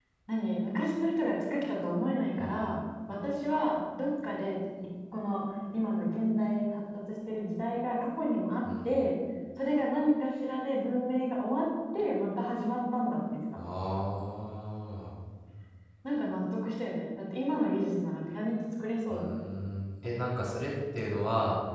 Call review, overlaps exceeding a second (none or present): none